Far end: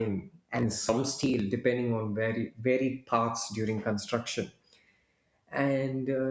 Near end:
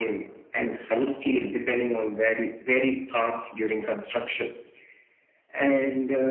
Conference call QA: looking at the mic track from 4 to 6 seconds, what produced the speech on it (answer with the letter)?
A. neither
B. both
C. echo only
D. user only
C